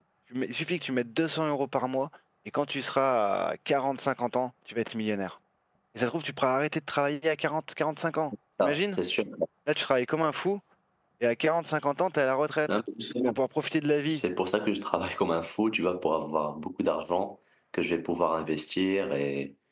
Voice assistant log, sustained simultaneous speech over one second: none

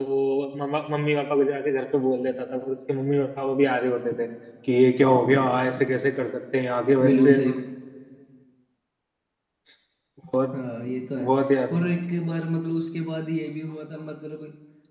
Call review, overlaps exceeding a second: none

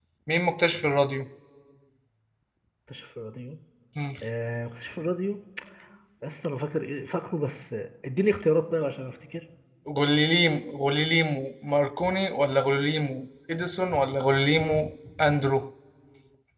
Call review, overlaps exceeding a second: none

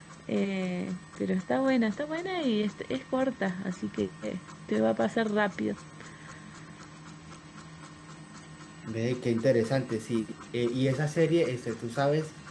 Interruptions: none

